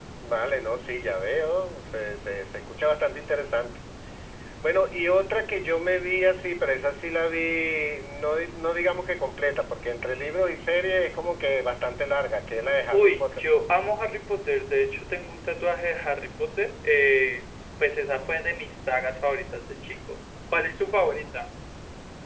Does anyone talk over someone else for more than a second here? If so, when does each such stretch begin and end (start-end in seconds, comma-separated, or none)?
none